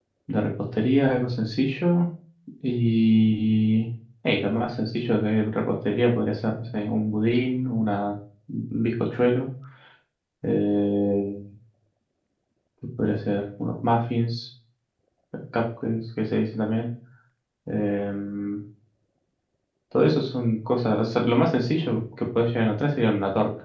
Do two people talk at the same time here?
No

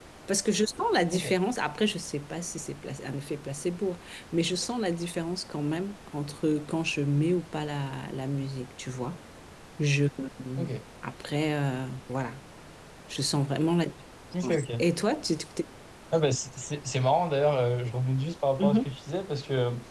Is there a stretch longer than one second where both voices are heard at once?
No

